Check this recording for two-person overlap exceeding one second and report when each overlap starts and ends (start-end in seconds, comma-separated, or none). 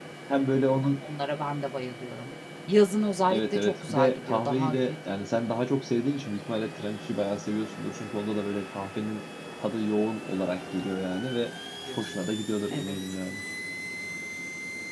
3.3-4.9